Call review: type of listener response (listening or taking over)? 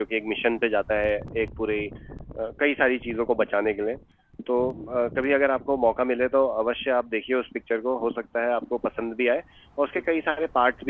listening